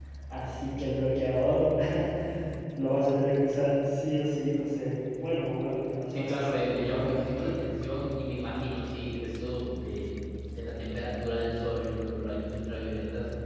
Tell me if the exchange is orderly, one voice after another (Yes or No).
No